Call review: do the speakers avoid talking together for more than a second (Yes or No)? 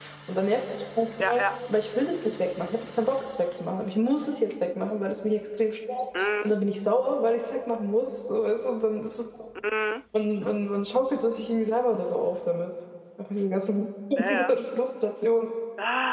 Yes